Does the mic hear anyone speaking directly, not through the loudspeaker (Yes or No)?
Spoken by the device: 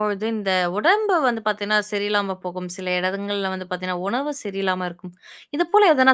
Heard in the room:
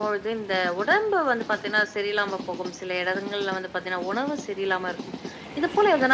No